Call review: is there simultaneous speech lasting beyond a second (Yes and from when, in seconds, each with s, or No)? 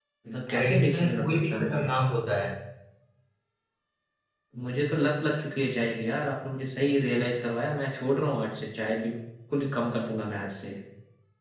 Yes, from 0.6 s